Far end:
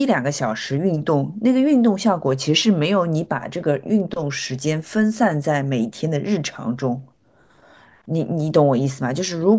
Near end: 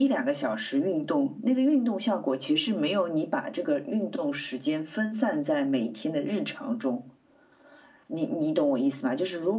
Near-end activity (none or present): none